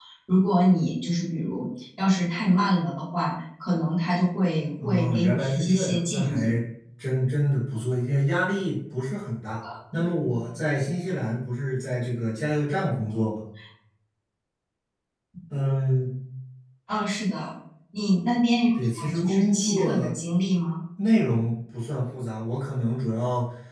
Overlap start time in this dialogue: 4.8 s

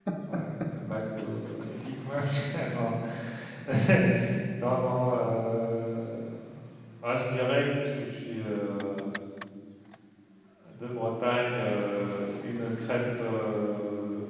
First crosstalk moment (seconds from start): none

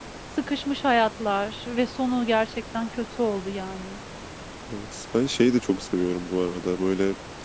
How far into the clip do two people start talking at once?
none

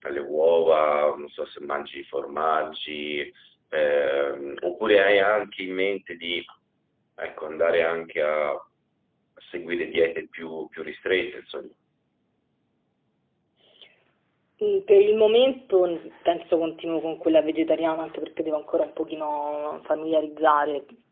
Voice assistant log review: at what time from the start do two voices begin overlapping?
none

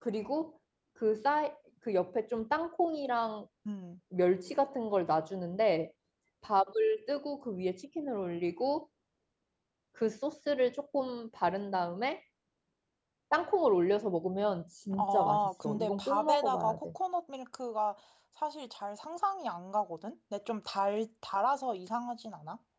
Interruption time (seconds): 14.9 s

